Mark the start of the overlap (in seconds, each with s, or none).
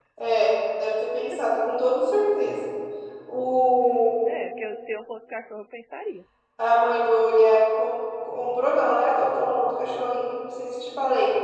none